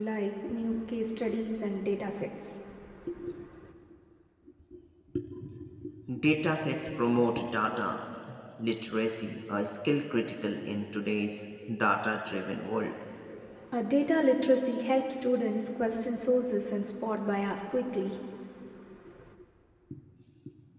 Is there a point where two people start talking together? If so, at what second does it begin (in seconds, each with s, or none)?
none